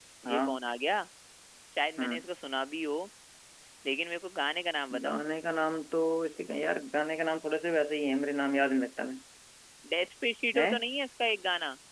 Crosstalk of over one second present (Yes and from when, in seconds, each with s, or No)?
No